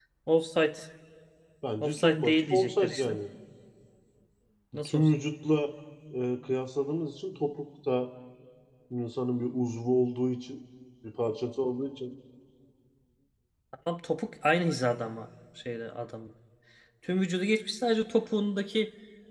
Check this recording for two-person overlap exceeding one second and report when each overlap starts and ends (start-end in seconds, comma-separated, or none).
1.8-3.2